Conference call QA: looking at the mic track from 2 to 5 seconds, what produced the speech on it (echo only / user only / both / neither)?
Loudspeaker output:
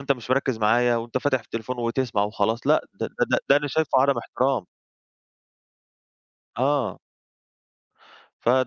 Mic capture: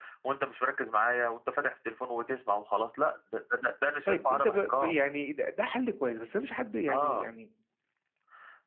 both